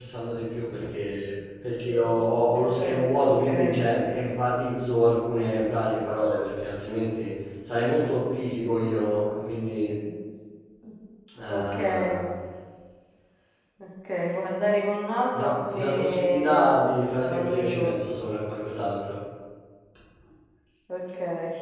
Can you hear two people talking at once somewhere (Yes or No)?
Yes